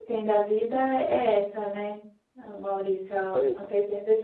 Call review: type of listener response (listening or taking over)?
listening